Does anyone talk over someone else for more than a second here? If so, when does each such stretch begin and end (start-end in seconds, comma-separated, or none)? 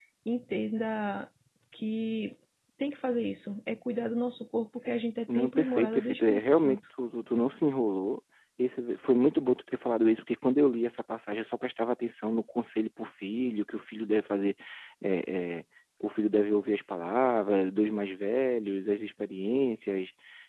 5.3-6.8